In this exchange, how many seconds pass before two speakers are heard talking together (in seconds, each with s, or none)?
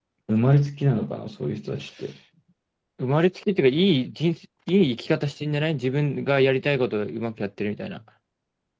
none